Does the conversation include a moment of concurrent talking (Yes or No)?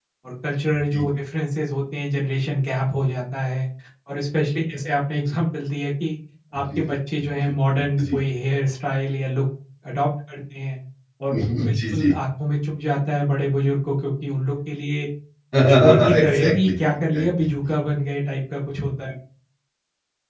Yes